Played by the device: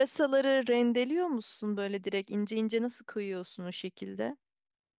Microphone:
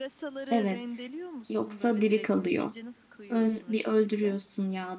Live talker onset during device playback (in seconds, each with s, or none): 0.5 s